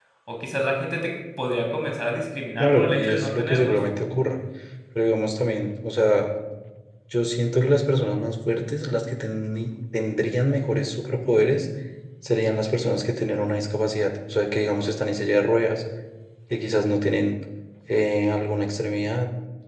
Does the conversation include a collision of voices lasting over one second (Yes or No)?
Yes